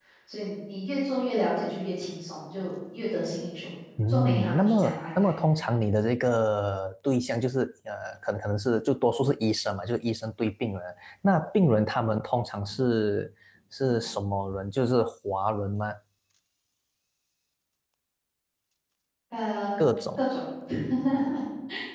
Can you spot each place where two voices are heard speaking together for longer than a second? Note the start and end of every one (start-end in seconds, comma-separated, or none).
4.1-5.3